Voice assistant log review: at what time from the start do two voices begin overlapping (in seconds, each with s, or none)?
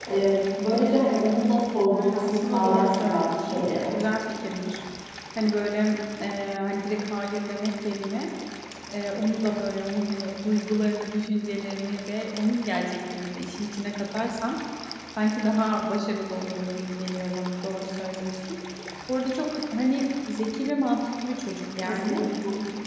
1.9 s